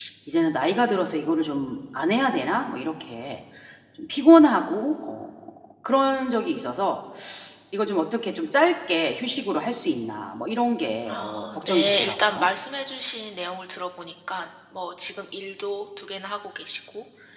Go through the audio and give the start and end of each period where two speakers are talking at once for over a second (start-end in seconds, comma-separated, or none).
11.1-12.5